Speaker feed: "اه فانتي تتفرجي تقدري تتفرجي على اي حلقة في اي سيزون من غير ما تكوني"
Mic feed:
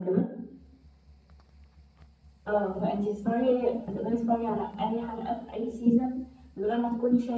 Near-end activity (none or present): none